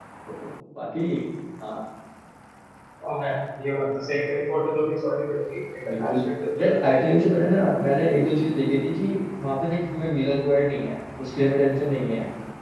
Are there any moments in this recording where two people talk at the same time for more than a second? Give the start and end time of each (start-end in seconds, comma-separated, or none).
none